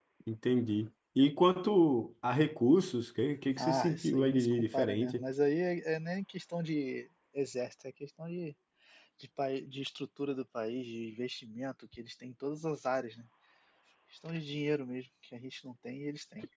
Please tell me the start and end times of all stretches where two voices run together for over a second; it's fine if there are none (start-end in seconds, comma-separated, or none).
3.6-5.2